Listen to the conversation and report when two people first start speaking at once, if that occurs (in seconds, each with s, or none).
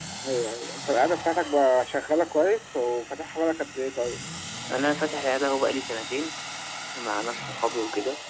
none